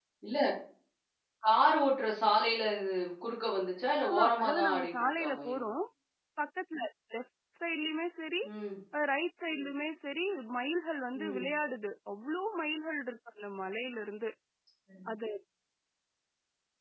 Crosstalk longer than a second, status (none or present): present